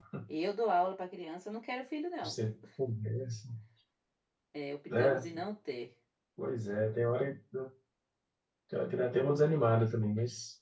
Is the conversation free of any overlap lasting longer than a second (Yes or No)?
Yes